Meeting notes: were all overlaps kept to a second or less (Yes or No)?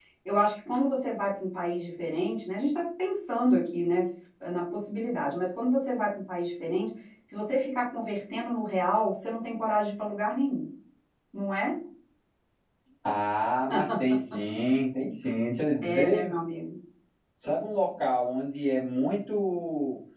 Yes